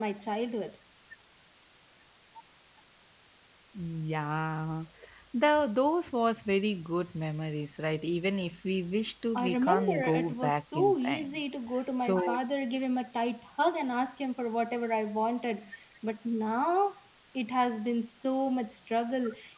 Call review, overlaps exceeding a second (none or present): present